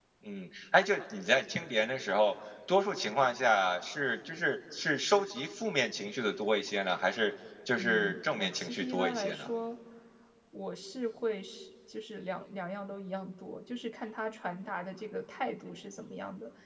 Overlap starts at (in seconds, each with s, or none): 7.8 s